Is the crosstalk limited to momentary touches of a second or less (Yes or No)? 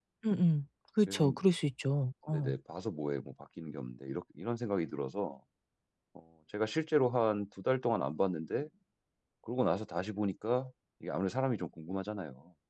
Yes